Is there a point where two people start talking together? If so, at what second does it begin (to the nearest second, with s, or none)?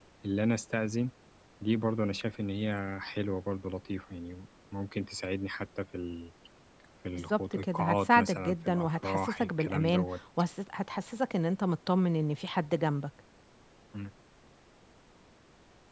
7 s